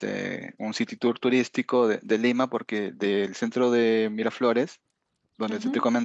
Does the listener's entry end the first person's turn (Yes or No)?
No